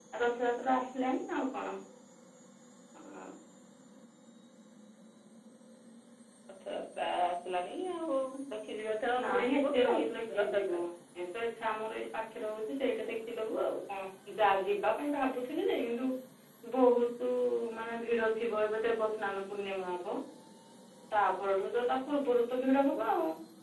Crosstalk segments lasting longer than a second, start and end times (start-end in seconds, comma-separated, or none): 9.2-10.8